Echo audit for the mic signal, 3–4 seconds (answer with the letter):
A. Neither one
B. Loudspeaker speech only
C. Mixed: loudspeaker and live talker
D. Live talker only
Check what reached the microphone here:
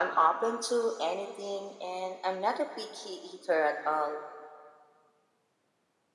B